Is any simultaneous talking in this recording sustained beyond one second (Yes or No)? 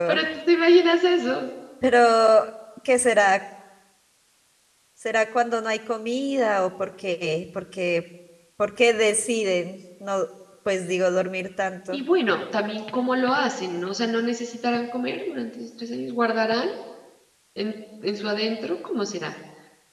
No